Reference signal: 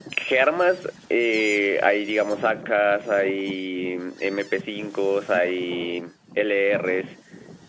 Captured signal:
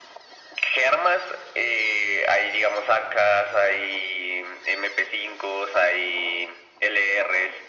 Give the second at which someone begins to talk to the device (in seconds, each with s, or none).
none